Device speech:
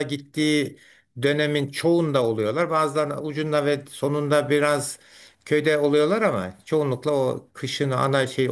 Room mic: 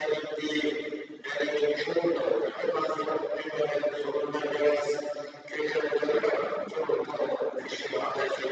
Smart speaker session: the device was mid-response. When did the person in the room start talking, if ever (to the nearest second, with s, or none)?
none